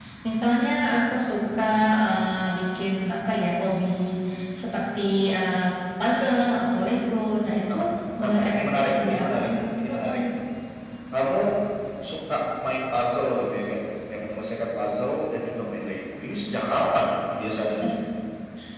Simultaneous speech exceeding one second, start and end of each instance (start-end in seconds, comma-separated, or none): 8.2-9.5